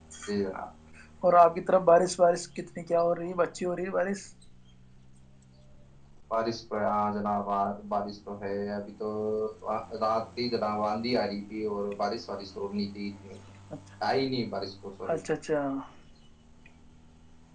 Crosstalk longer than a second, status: none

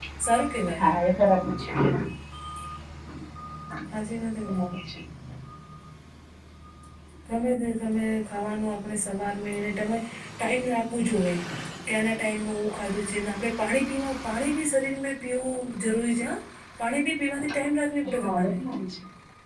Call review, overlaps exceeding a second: none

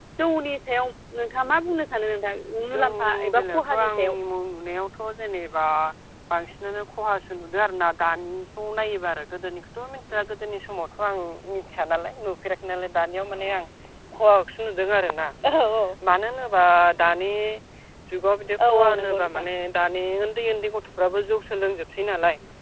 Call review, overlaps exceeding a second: present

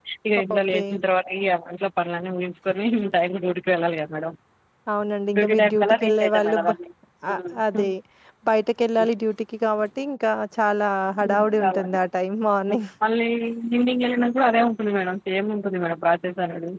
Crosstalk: present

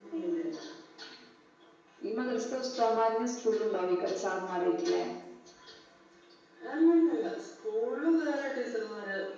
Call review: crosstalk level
none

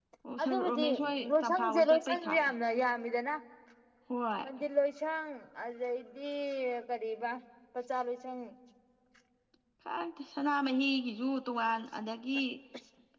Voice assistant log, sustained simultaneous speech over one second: present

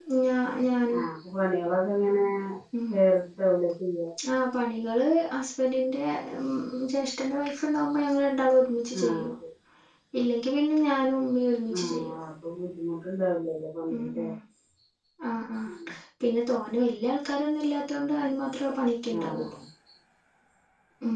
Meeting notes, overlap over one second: none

